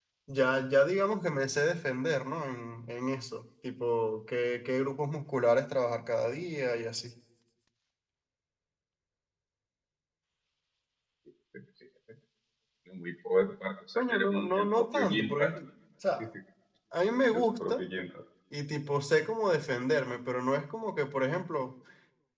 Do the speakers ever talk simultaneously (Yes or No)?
Yes